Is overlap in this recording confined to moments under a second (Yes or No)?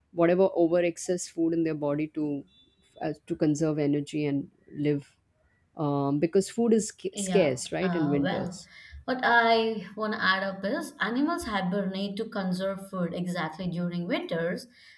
No